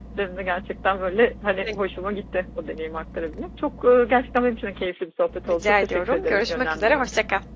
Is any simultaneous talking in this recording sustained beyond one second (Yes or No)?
Yes